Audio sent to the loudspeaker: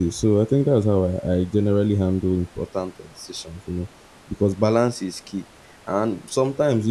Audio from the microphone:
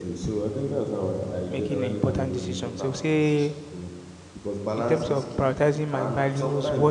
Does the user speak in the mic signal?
Yes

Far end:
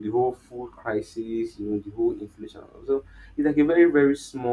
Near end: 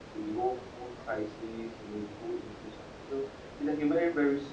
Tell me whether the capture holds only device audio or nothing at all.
Yes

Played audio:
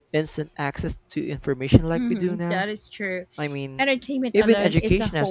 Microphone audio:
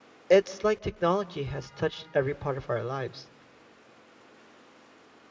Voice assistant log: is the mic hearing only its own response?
No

